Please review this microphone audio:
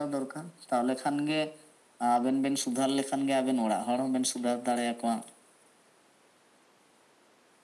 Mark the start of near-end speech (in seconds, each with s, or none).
none